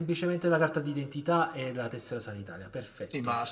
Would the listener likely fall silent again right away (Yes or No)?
No